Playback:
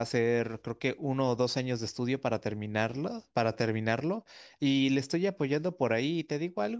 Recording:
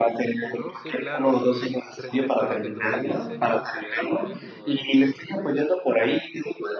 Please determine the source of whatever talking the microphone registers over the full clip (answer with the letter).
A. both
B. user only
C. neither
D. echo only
A